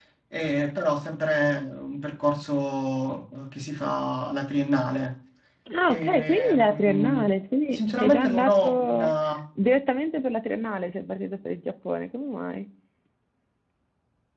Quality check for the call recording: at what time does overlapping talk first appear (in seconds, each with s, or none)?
5.9 s